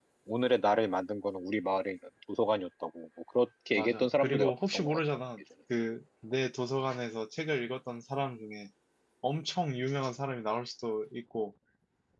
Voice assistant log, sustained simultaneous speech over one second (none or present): present